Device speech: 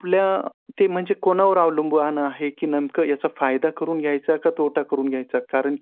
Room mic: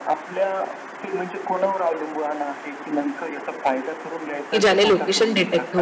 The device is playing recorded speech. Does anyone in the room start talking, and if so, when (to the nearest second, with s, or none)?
5 s